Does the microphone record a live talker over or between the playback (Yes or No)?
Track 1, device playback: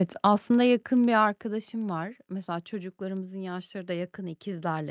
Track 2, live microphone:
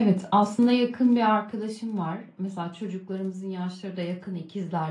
No